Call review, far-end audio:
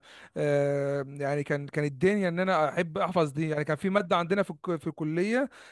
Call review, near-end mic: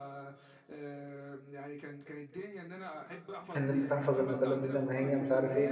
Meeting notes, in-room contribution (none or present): present